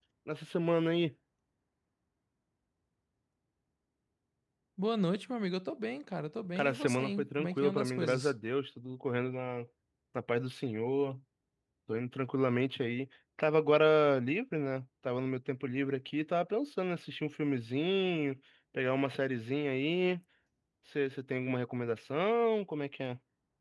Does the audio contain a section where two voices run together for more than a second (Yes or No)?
Yes